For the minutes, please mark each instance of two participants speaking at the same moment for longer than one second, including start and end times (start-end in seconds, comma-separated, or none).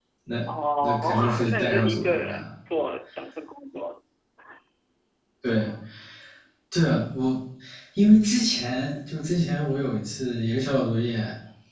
0.8-2.4